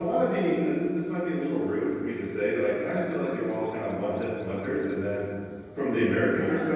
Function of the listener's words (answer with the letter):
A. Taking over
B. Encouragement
B